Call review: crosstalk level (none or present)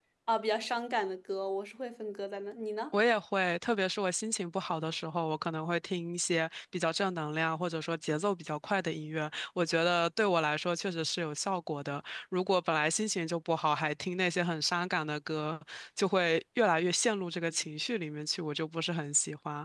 none